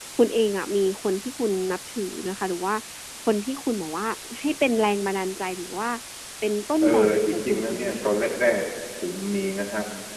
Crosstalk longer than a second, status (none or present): present